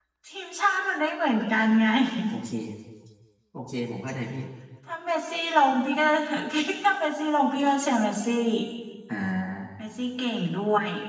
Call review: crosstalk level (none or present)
none